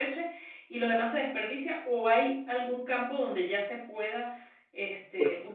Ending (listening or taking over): listening